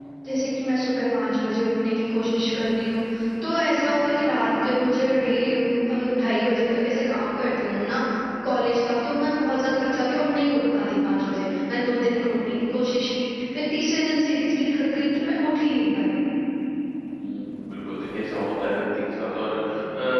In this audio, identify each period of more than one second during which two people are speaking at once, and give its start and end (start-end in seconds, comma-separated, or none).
none